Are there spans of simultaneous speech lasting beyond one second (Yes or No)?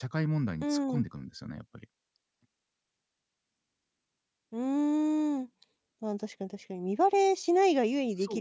No